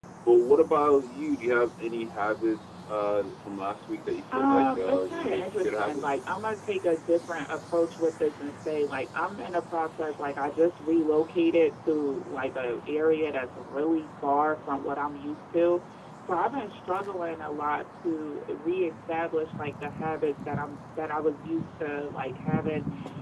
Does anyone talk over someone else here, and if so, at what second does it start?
4.3 s

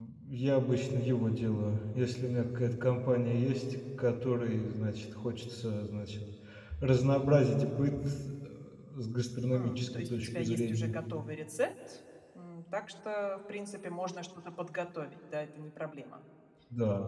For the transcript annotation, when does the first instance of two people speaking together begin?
9.5 s

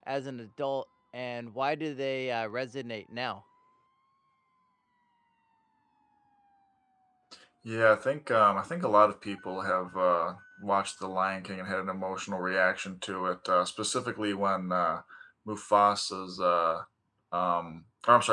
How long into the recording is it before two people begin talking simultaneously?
none

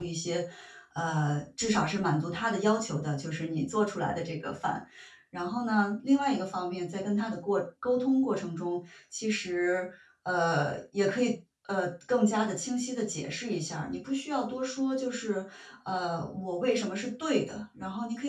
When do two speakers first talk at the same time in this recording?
none

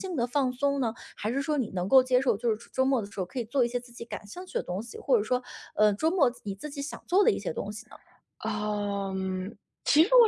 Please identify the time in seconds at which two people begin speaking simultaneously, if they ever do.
none

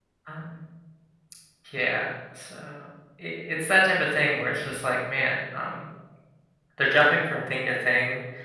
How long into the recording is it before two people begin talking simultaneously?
none

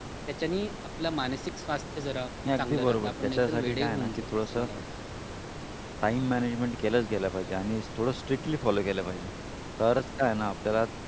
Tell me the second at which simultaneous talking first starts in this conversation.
2.4 s

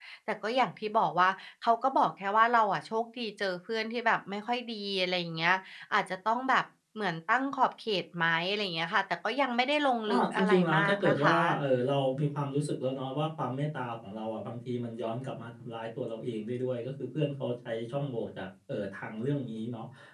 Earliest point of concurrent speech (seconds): 10.1 s

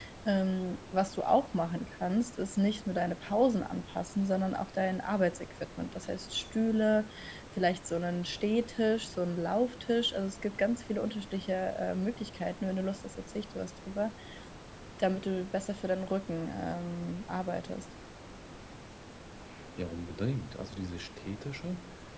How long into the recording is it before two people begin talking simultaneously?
none

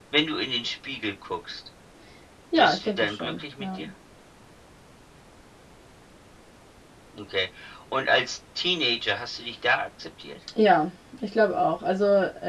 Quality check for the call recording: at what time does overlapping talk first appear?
2.5 s

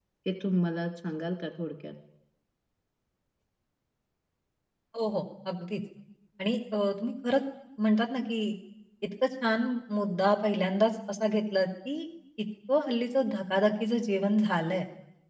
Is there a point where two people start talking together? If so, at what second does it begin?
none

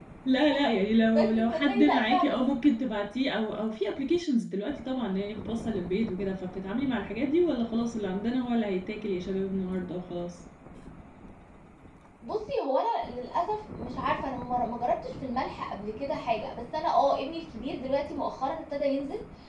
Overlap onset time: 1.2 s

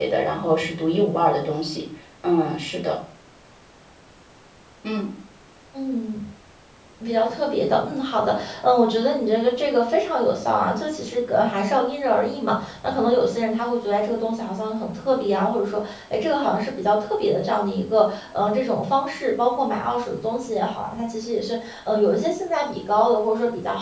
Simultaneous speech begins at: none

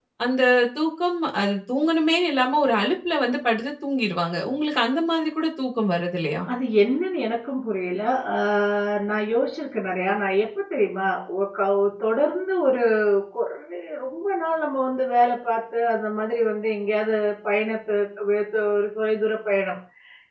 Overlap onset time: none

